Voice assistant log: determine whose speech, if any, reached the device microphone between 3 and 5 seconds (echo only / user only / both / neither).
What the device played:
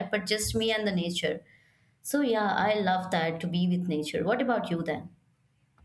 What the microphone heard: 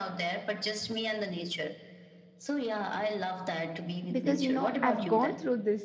both